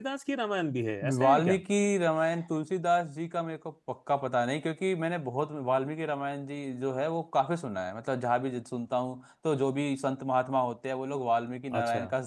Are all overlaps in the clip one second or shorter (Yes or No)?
Yes